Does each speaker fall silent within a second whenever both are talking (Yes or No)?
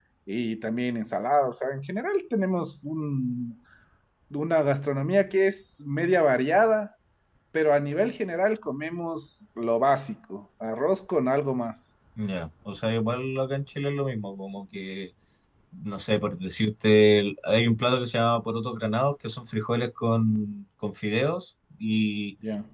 Yes